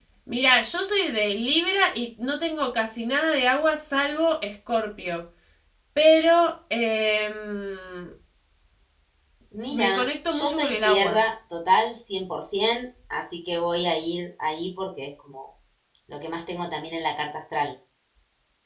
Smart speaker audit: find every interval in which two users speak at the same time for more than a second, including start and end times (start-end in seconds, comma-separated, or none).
9.7-11.2